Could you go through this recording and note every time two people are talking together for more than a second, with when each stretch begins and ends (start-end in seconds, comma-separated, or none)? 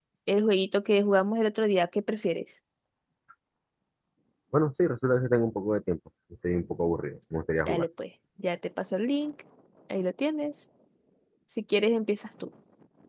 none